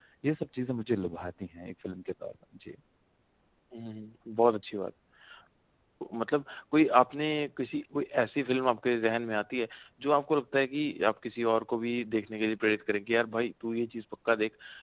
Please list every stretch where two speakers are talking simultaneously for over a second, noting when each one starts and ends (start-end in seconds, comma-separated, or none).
none